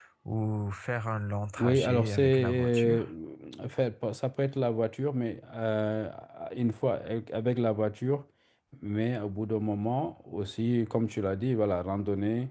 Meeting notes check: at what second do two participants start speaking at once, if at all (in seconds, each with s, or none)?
1.6 s